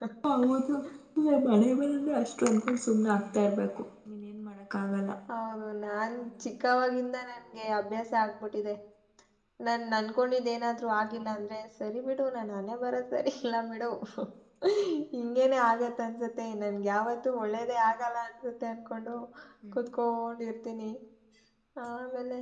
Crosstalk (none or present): none